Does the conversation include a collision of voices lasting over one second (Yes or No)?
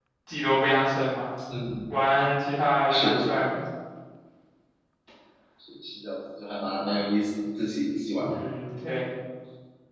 No